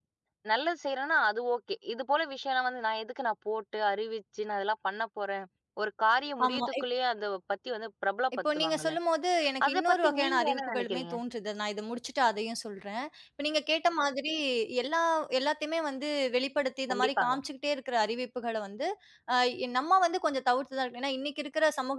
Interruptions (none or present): present